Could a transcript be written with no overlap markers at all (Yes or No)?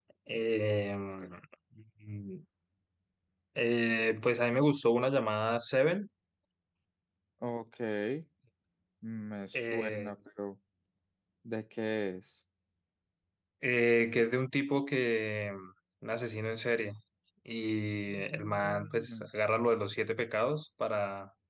No